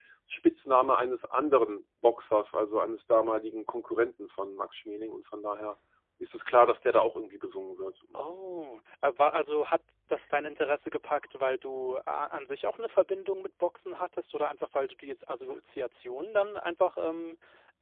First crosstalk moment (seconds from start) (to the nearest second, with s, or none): none